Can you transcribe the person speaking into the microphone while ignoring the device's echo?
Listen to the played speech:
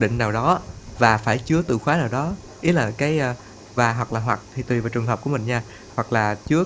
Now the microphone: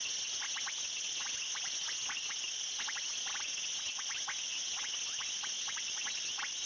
none

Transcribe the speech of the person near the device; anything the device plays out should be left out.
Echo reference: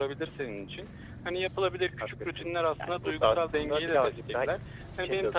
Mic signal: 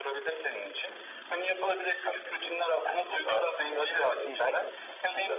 Hı hı.

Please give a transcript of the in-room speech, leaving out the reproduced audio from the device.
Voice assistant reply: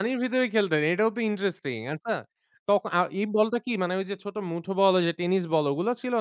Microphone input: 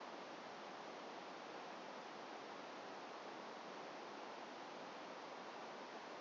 none

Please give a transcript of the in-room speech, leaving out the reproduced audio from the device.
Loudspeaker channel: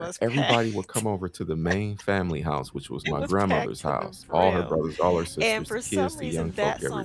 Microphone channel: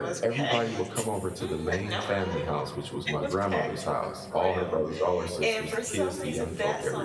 Mm, okay,

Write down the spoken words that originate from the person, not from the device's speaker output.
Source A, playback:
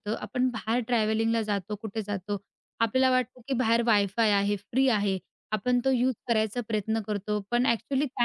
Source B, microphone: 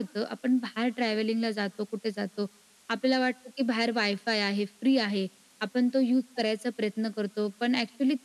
none

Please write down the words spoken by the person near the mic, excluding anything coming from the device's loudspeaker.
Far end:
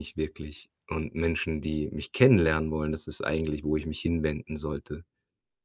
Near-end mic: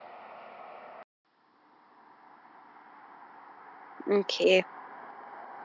okay.

